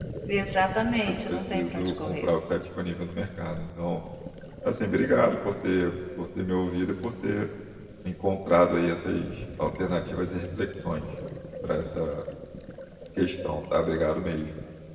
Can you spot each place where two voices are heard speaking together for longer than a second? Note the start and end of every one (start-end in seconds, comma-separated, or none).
1.1-2.3